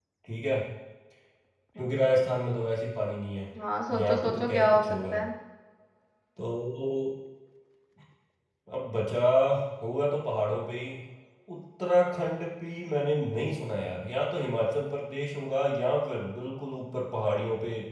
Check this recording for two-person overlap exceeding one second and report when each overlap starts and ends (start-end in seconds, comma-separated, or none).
3.9-5.2